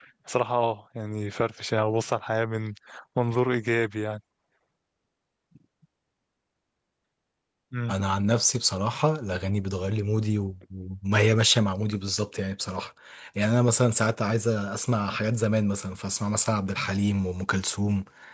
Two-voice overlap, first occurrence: none

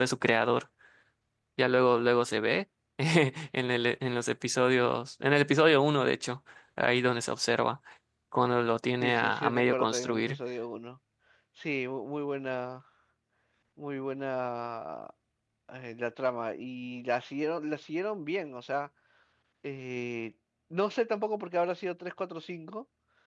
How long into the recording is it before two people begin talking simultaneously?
9.0 s

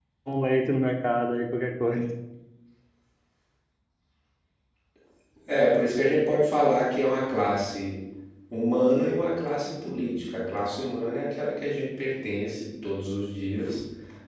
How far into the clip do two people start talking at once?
none

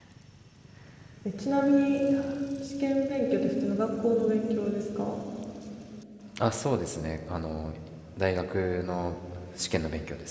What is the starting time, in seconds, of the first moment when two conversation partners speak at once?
none

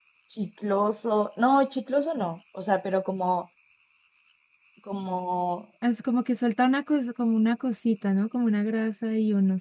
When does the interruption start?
none

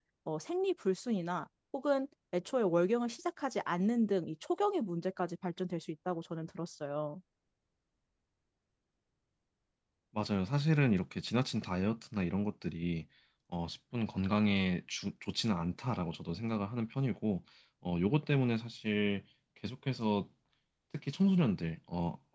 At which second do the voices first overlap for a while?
none

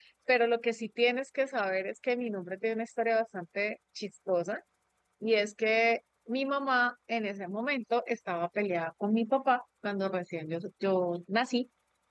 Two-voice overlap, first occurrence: none

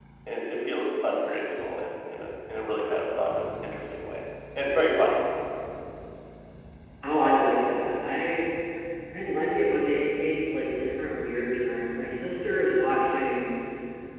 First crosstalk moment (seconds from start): none

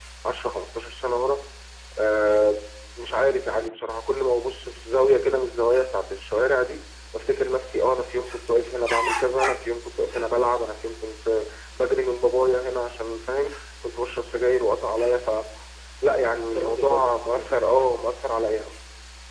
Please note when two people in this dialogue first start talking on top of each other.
16.4 s

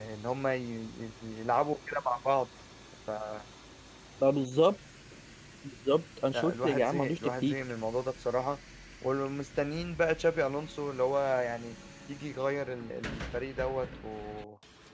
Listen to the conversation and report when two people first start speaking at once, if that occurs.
6.3 s

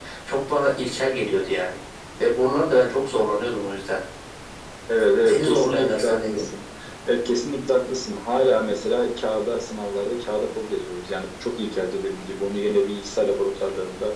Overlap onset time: 5.2 s

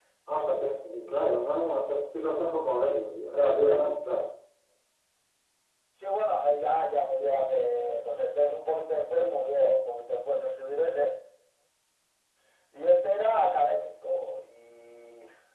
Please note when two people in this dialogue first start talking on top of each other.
none

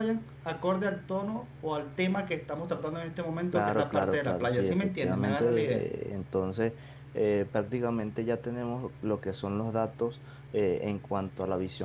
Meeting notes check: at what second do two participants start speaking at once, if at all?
3.5 s

